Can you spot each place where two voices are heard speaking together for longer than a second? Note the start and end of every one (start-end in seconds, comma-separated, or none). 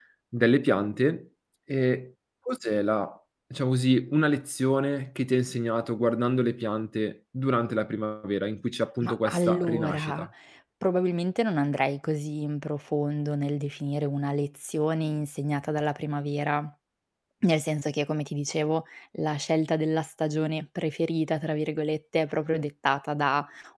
9.0-10.3